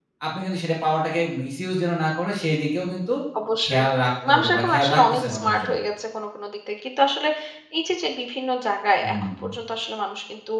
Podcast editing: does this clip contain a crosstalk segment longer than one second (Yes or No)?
Yes